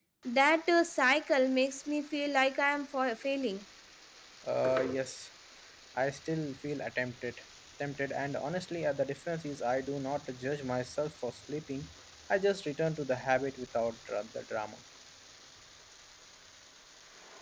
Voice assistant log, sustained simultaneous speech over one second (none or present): none